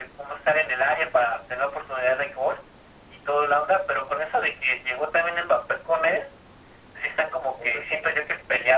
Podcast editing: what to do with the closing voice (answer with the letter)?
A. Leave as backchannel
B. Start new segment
A